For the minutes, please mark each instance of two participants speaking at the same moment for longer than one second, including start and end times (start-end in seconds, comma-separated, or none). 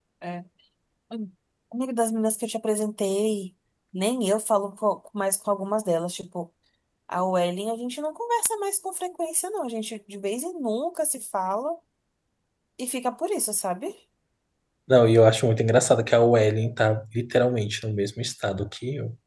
none